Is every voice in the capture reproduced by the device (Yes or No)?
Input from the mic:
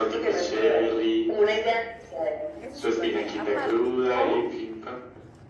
No